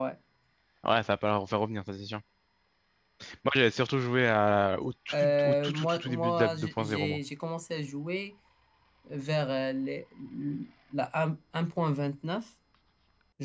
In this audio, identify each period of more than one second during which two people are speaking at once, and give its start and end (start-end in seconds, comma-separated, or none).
5.1-7.2